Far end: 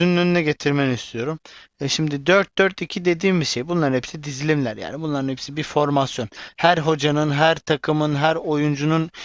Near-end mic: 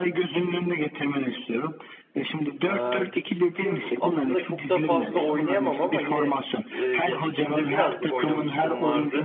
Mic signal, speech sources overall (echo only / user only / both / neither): both